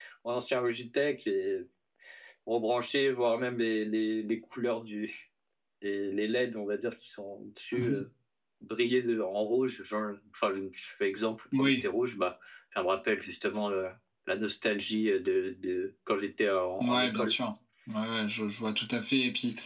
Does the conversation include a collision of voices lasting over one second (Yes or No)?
No